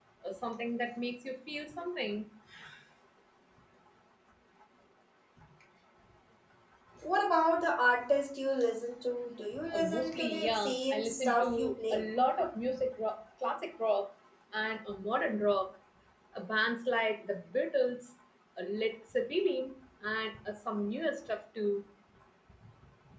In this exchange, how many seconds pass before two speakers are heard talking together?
10 s

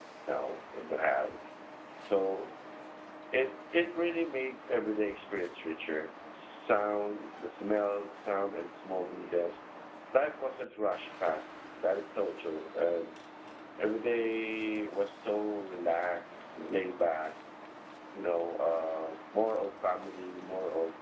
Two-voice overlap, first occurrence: none

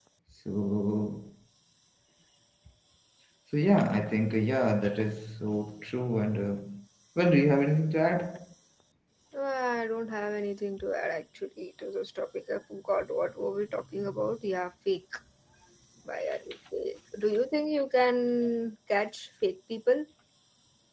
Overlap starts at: none

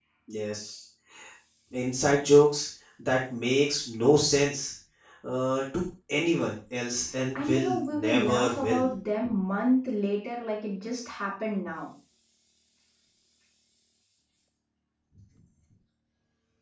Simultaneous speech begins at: 7 s

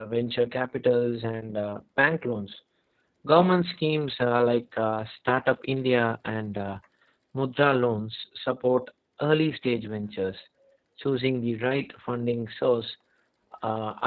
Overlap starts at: none

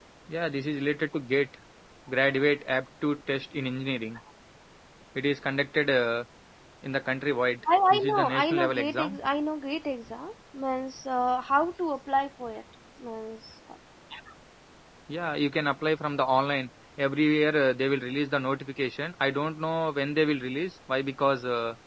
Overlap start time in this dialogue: 8 s

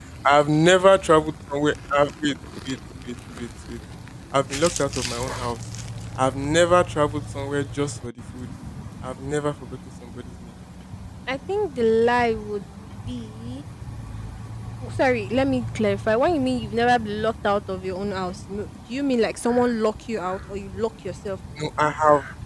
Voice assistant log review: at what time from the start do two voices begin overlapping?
none

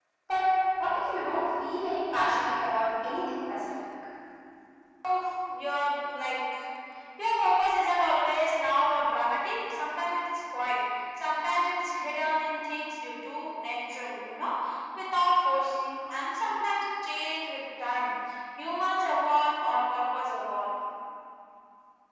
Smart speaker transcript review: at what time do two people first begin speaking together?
none

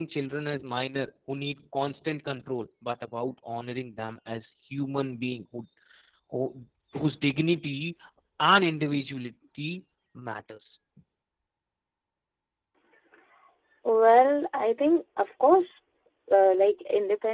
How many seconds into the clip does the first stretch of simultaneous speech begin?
none

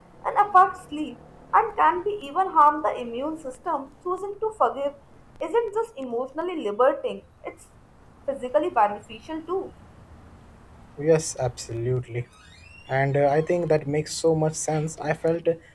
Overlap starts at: none

